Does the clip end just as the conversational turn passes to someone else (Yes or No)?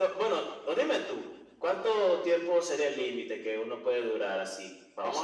Yes